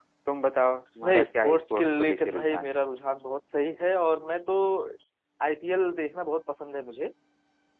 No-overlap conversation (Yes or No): No